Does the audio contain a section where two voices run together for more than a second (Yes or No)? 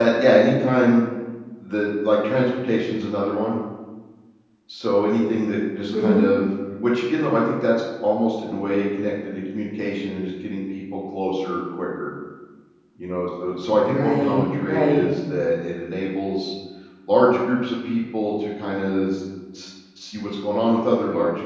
Yes